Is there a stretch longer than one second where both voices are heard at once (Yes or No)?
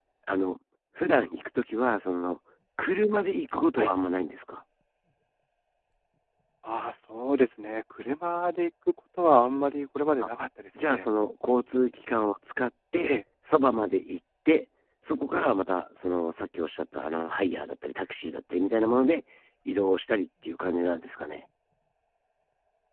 No